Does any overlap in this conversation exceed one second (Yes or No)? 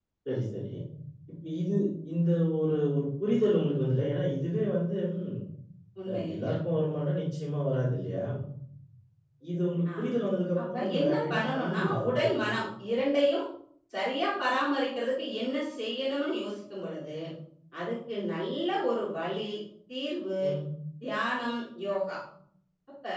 Yes